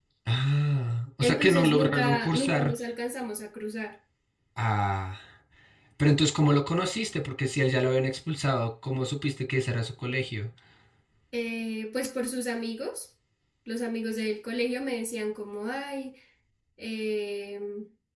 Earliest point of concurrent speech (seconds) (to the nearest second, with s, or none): 1 s